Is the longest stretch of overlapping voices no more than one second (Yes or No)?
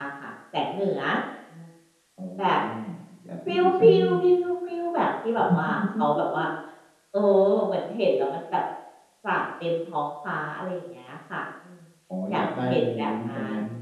No